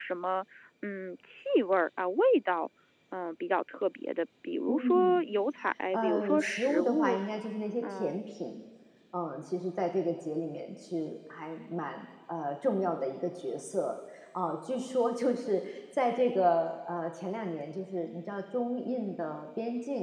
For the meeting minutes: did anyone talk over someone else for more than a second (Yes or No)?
Yes